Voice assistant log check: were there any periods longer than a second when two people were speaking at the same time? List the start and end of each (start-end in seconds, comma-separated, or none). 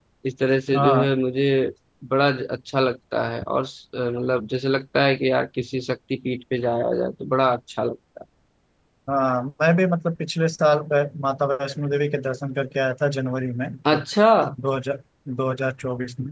none